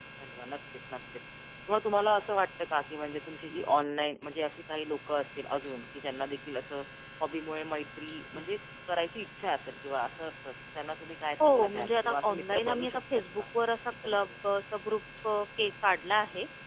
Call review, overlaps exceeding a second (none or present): present